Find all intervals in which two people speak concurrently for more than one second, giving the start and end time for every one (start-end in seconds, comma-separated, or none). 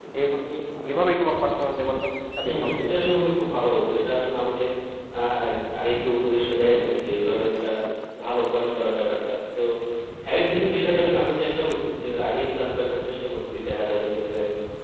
none